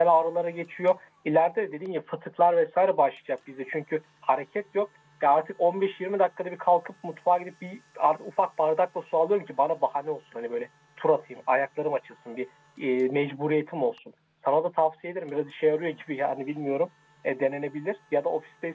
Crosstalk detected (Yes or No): No